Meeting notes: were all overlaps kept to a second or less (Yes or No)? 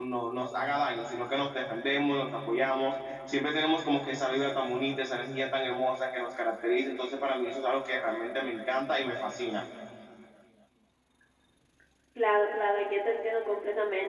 Yes